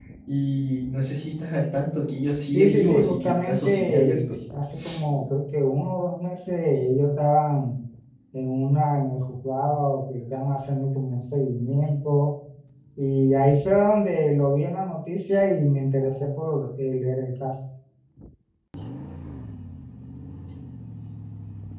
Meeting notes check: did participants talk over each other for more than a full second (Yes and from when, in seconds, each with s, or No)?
Yes, from 2.5 s